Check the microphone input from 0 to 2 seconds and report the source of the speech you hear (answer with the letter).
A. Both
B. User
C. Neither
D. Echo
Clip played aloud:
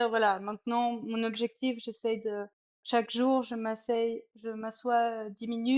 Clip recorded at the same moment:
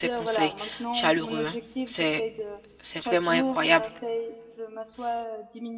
A